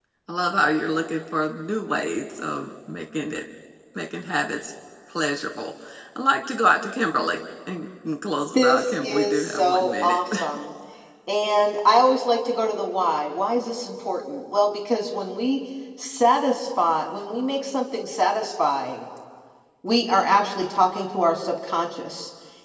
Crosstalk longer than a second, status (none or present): present